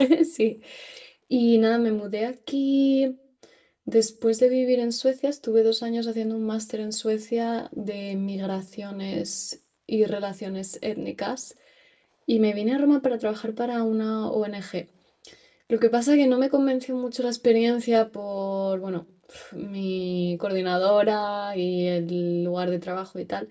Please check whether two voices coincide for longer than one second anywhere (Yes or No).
No